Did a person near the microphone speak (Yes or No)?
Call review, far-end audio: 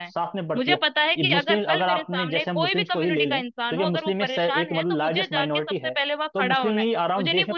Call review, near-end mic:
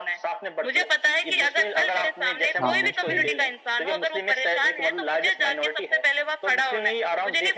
Yes